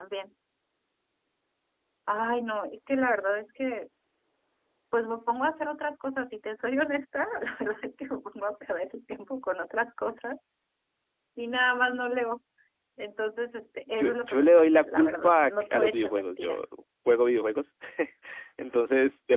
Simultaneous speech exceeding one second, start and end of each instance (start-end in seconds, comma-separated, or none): 13.9-16.6